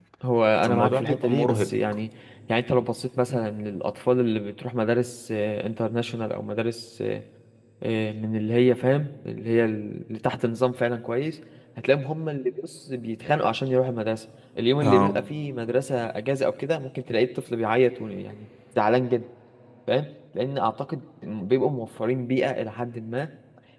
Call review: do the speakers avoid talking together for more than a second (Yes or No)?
No